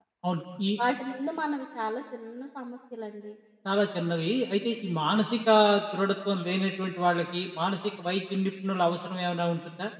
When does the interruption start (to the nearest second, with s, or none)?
none